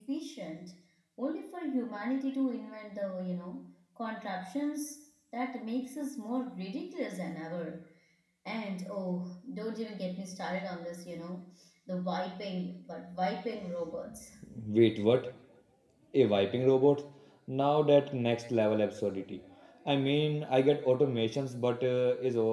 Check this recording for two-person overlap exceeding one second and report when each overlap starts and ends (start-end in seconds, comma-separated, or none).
none